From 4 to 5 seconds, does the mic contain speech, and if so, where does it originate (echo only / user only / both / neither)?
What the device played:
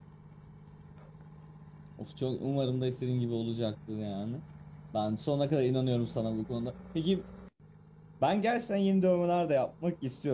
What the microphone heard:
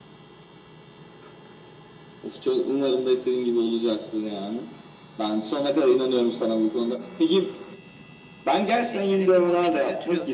echo only